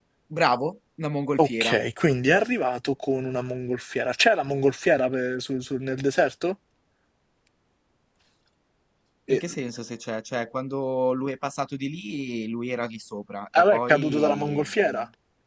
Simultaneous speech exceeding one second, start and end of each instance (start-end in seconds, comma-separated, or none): 13.5-14.9